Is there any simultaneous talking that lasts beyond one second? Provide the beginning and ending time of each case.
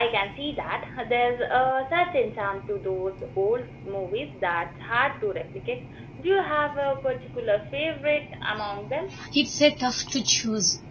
none

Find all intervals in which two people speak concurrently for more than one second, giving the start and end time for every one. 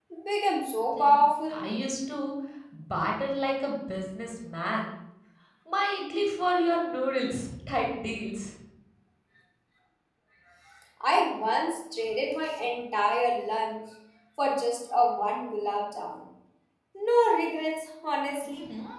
none

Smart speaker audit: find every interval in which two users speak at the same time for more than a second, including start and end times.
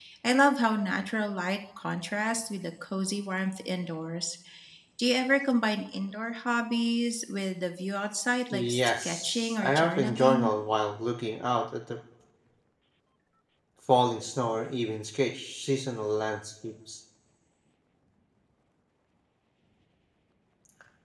8.5-10.5

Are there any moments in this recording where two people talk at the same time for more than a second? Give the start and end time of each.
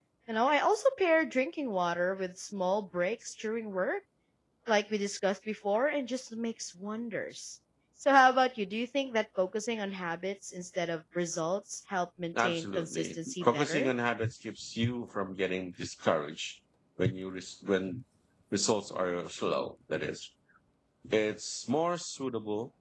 12.3-13.9

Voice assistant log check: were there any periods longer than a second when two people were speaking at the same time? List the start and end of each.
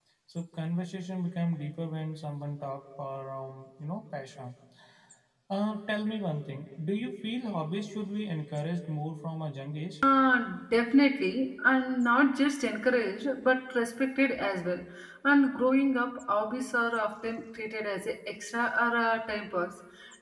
none

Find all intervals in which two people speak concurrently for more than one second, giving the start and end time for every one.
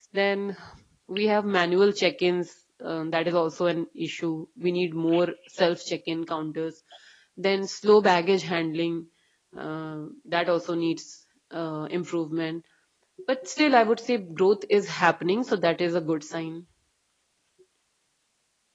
none

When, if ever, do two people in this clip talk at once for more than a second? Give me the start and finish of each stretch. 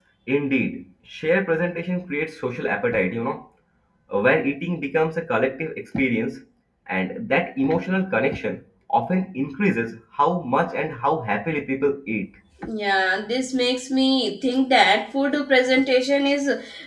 none

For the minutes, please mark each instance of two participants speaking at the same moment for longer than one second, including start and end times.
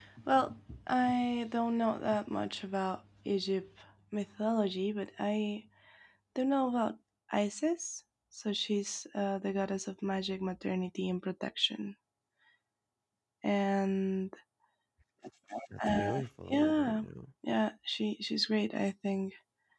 none

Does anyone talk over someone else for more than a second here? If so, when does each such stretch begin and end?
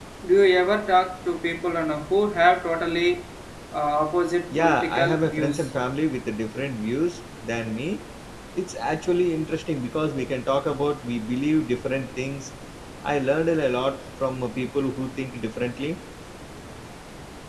4.5-5.7

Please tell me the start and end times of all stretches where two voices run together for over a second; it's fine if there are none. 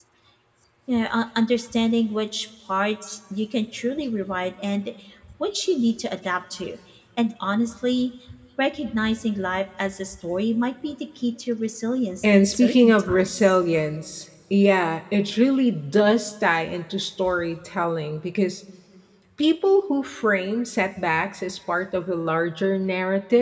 12.2-13.6

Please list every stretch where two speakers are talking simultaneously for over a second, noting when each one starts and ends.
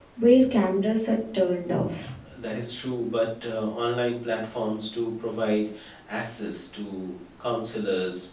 none

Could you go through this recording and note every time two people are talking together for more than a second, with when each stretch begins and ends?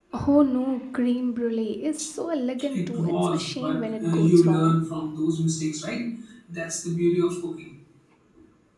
2.7-4.8

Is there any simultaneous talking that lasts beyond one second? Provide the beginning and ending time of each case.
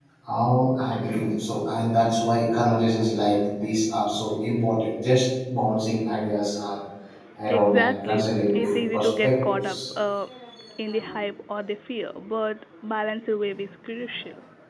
7.5-9.8

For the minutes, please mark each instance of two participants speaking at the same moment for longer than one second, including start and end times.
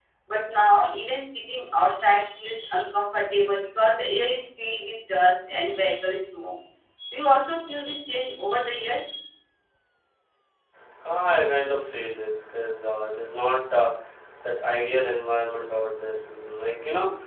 none

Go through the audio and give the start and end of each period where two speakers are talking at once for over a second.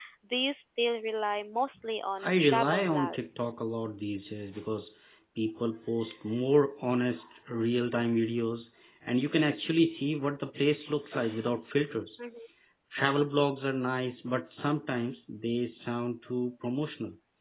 2.2-3.6

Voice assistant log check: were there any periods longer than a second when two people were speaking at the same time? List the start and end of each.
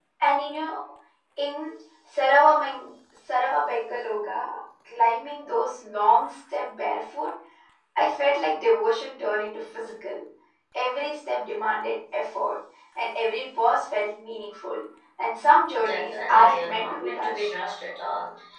15.8-17.5

